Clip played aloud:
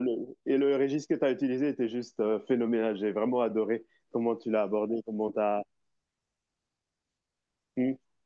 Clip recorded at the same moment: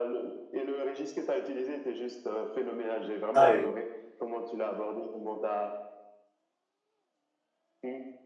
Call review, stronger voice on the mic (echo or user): user